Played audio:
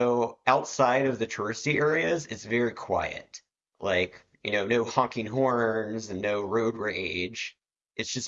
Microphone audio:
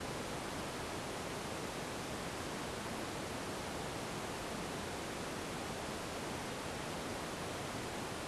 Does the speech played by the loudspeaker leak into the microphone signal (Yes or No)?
No